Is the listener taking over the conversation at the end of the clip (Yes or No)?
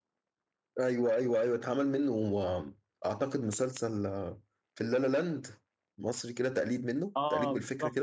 Yes